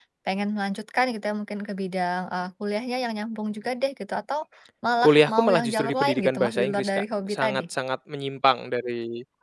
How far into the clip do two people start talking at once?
5.0 s

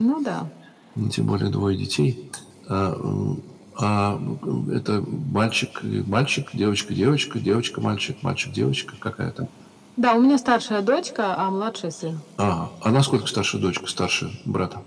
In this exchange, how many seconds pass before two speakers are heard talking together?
none

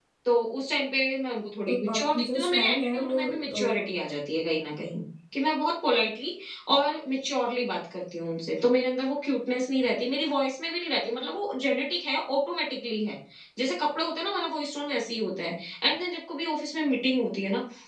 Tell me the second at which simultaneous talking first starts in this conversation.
1.7 s

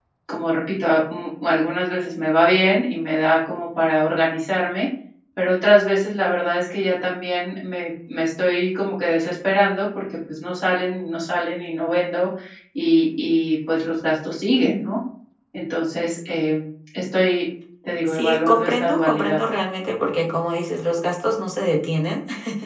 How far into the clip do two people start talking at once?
18.1 s

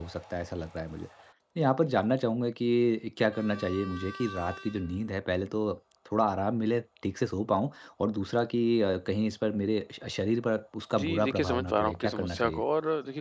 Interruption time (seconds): 11.0 s

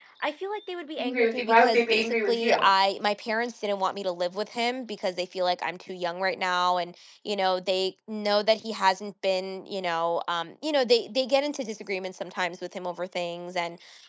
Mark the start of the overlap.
1.0 s

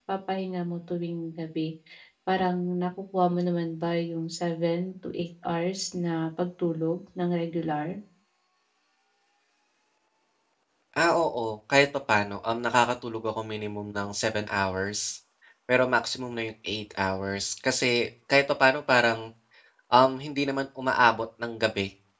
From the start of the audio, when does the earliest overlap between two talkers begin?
none

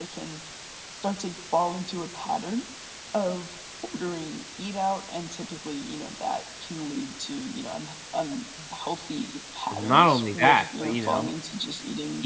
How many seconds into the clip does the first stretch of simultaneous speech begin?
9.7 s

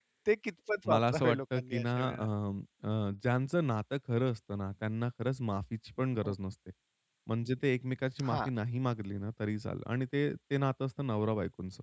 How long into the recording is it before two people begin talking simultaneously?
0.9 s

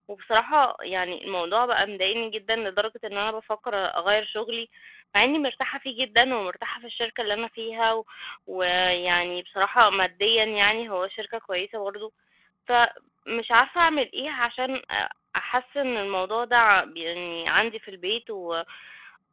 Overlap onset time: none

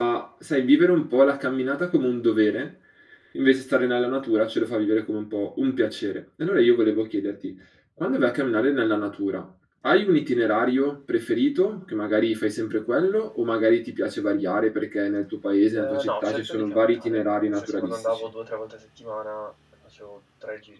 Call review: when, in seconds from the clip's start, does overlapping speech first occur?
15.8 s

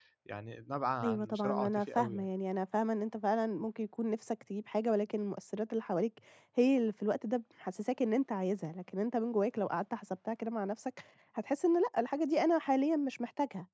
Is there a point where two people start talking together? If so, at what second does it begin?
1.0 s

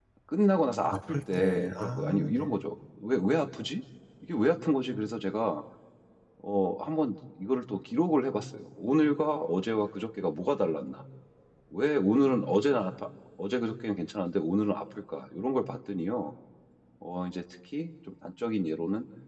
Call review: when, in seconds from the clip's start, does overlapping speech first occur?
0.9 s

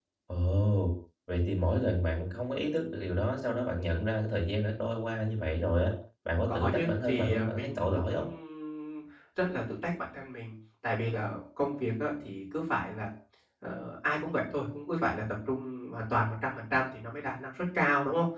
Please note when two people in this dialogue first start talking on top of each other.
6.5 s

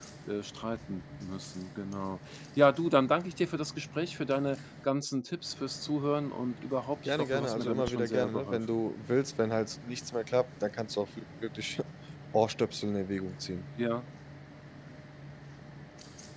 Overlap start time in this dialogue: 7.0 s

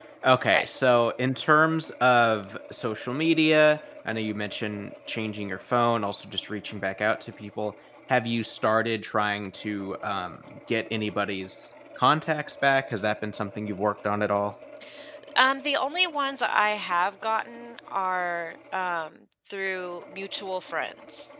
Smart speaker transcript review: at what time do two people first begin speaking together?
none

